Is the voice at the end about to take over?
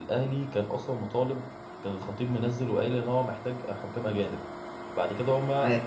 No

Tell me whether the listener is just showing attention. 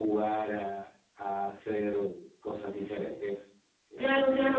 No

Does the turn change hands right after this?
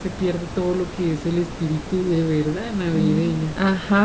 Yes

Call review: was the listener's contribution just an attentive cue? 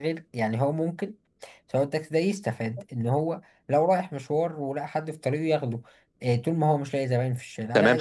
No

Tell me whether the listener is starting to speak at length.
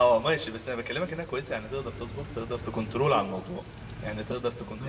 Yes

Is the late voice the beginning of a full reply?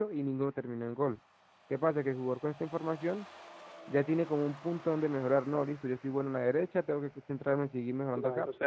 Yes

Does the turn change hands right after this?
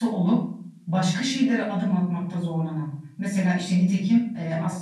No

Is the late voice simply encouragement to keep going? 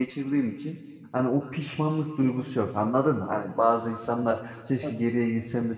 Yes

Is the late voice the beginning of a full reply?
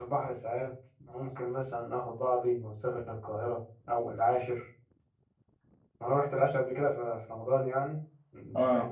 No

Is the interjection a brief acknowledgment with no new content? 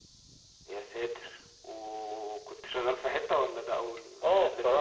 No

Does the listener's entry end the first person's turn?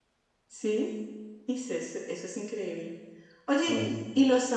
No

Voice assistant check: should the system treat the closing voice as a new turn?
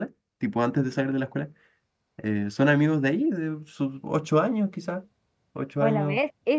Yes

